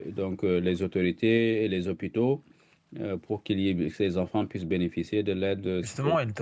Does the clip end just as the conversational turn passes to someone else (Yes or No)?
Yes